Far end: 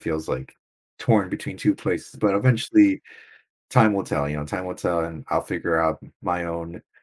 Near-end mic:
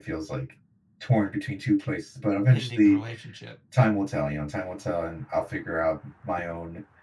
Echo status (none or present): present